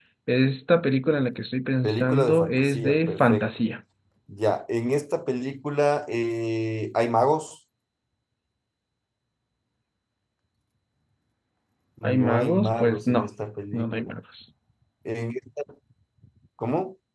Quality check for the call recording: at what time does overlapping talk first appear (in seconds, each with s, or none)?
1.8 s